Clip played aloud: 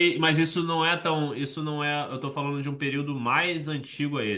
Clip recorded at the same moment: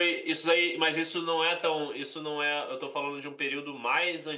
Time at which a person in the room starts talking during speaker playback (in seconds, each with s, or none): none